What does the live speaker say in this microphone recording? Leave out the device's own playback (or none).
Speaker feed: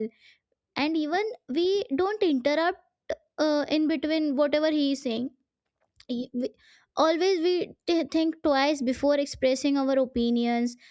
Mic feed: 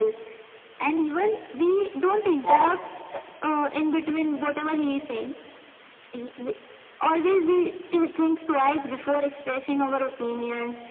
yeah